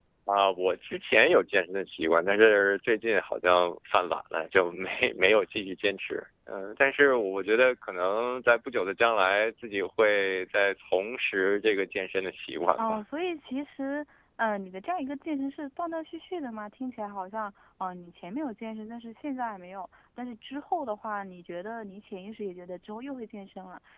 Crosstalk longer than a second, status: none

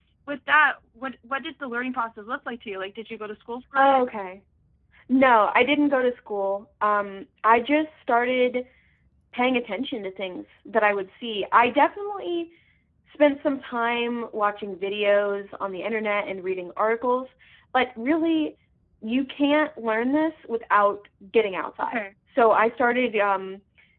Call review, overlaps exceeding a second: none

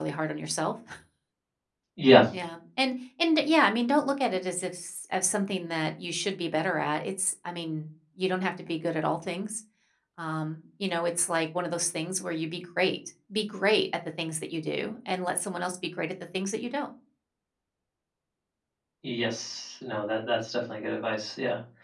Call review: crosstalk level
none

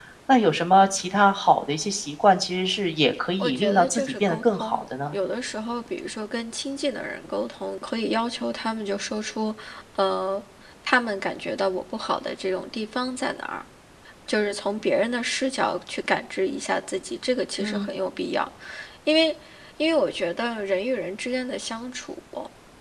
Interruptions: present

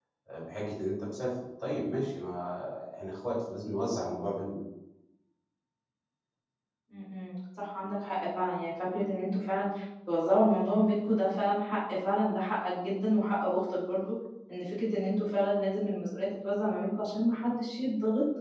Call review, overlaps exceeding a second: none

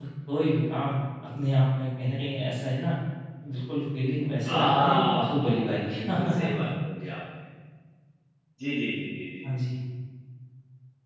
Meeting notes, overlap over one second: present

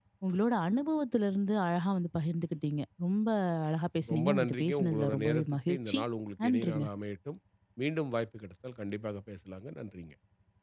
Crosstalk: present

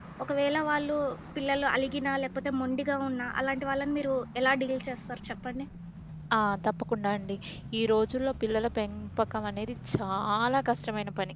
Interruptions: none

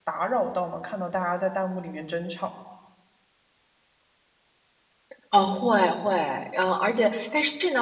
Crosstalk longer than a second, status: none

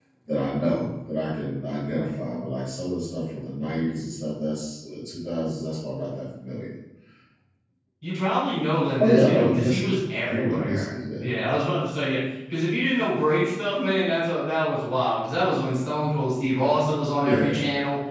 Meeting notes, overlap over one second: present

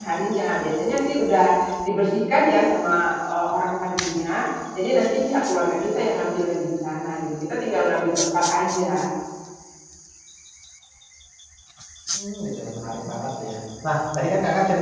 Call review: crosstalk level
none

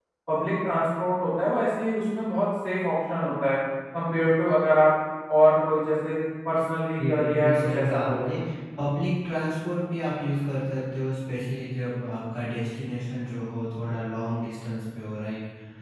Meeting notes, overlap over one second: present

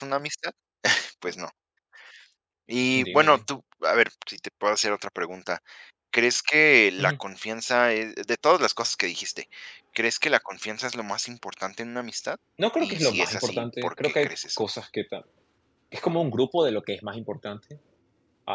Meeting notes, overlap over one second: present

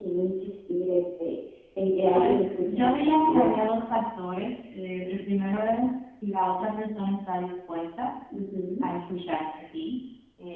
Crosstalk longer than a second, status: present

